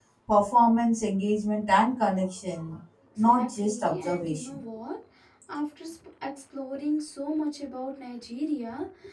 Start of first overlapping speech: 3.2 s

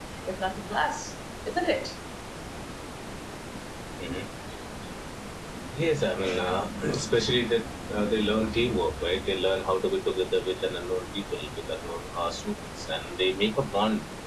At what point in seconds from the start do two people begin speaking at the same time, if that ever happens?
none

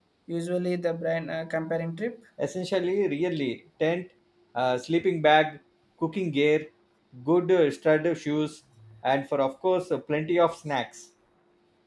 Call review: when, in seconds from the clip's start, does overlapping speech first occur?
none

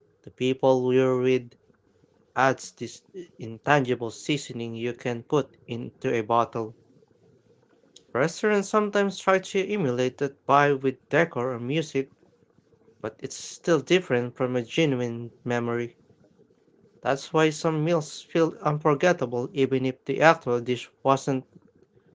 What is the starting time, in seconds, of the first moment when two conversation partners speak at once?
none

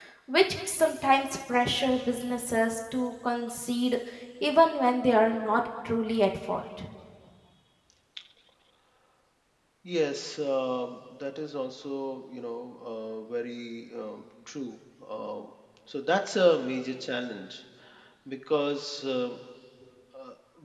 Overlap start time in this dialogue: none

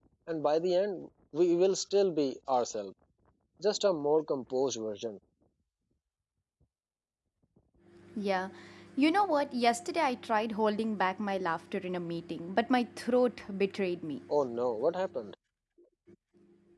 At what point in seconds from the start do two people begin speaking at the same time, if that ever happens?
none

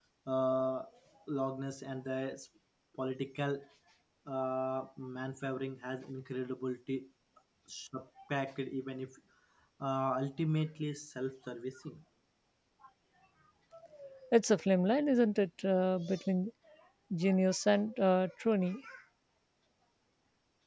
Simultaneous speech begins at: none

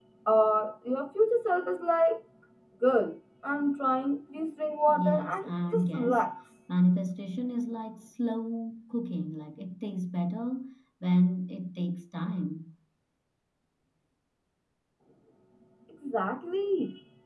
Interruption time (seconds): 4.9 s

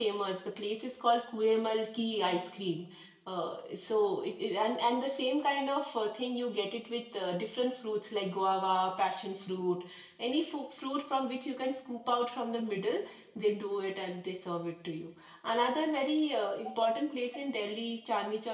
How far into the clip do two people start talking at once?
none

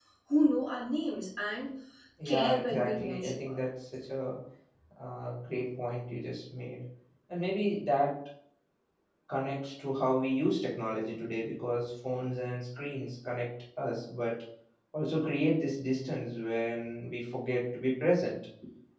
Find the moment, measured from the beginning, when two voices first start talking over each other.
2.2 s

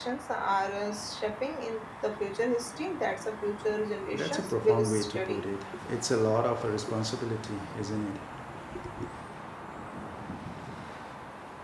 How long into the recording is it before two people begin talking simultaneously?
4.1 s

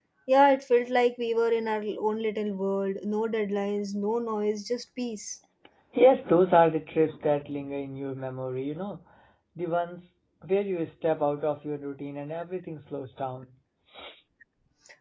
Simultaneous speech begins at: none

